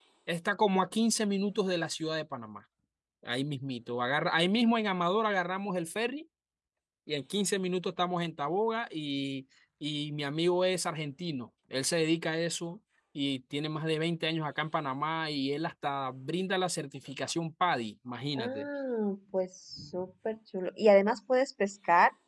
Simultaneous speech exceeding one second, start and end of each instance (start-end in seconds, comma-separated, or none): none